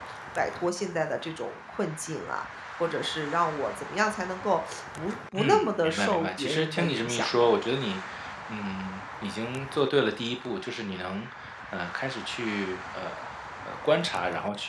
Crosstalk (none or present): present